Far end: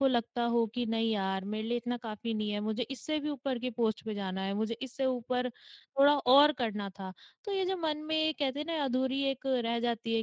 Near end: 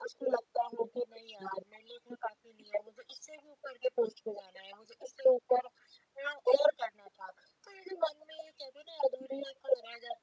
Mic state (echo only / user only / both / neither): echo only